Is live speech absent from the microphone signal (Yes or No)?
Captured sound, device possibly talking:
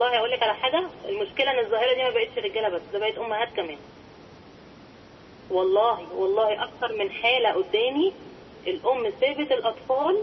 Yes